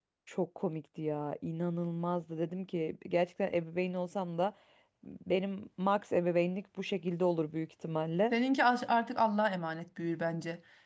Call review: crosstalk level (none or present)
none